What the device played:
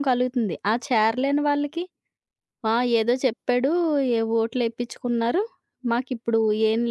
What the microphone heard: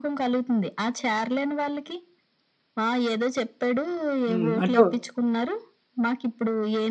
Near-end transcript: హ్మ్. అంటే

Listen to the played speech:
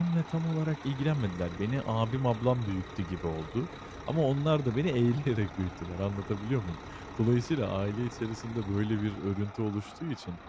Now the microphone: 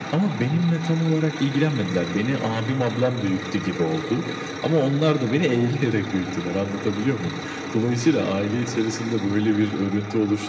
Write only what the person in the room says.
none

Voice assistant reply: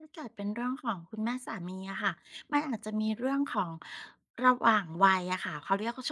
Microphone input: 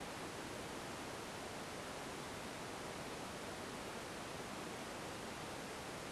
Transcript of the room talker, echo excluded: none

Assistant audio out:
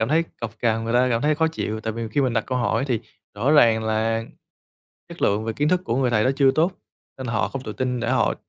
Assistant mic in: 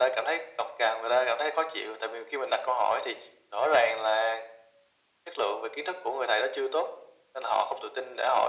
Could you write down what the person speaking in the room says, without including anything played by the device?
none

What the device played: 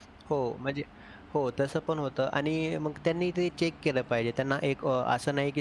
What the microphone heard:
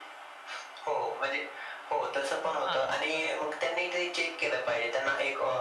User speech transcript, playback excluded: हां, बरोबर.

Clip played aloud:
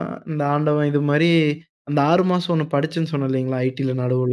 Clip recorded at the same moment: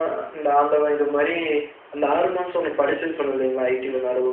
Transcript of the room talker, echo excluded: none

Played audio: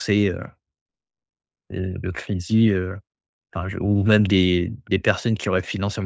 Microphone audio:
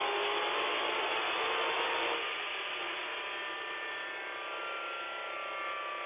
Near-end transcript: none

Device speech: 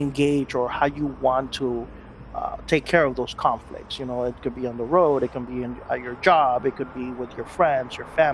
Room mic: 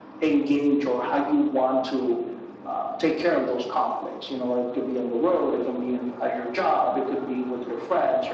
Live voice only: none

